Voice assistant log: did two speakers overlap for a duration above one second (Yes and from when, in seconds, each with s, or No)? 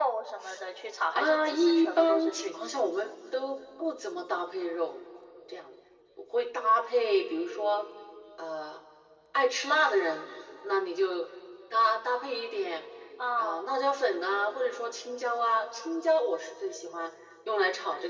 Yes, from 1.1 s